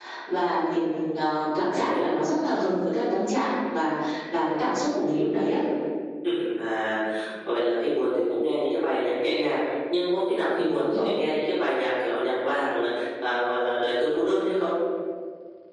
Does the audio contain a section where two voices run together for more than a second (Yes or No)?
No